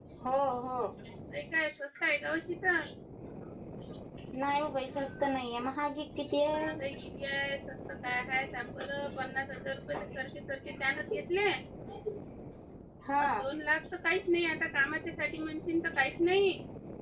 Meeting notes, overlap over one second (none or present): none